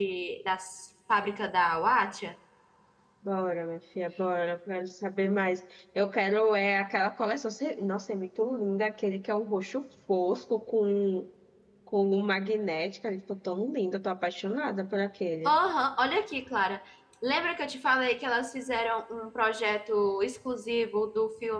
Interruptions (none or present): none